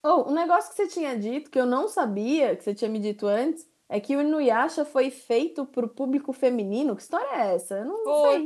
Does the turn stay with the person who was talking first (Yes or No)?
No